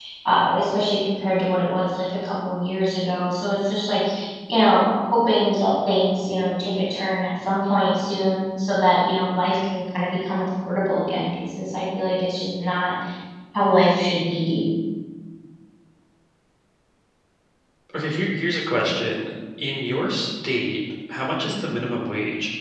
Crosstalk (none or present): none